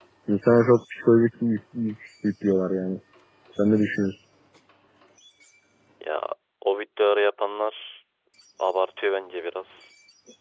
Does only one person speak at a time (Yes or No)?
Yes